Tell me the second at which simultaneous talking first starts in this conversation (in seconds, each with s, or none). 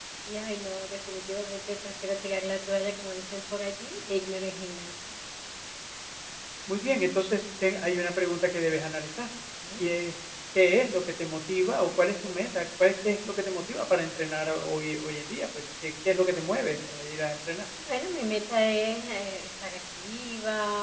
none